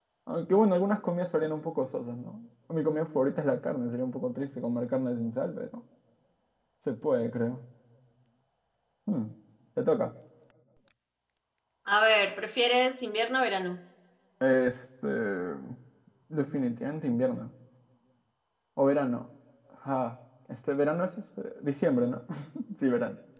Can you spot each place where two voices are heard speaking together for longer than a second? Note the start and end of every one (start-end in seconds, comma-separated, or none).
none